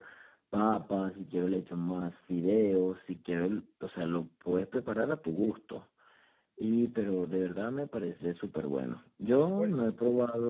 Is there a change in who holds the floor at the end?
No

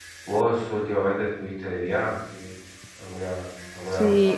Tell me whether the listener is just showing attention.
No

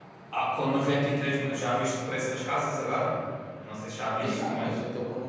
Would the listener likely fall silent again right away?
No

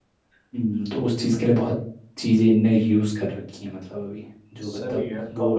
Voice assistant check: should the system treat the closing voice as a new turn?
Yes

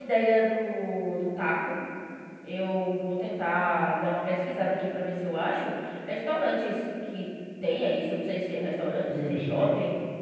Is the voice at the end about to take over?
No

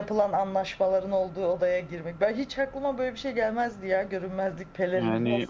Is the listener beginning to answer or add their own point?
Yes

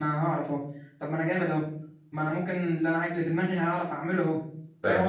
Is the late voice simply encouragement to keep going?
No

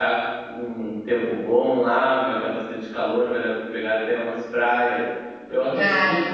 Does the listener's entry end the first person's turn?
No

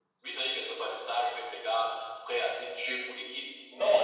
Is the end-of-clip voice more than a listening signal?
Yes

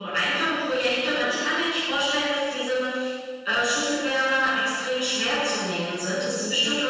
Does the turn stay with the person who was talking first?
Yes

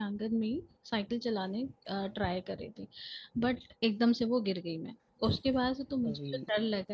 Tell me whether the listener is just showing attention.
Yes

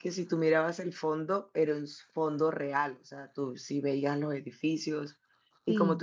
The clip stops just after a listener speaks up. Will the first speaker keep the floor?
Yes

